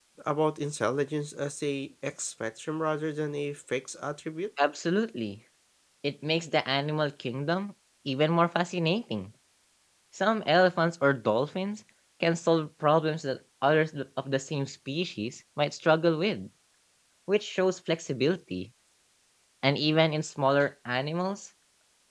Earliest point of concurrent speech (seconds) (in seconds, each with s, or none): none